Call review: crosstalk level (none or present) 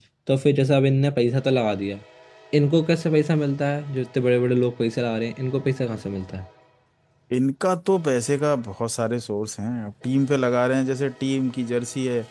none